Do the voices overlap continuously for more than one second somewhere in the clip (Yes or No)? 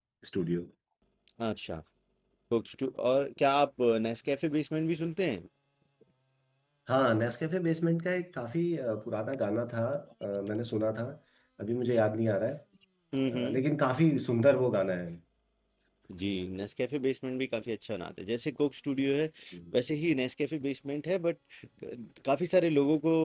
No